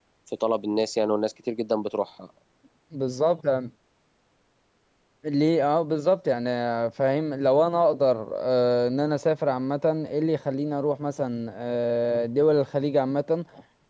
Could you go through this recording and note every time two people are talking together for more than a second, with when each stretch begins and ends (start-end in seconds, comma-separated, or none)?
none